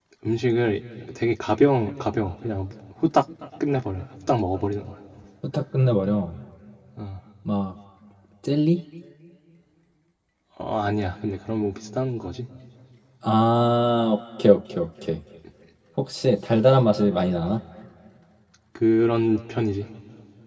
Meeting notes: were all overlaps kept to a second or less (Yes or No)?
Yes